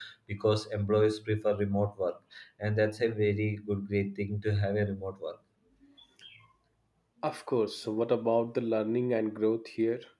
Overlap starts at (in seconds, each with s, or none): none